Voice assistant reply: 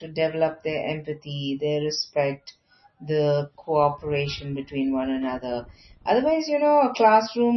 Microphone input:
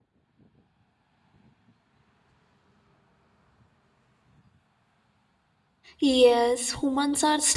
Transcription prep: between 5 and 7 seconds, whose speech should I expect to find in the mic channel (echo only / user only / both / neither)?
user only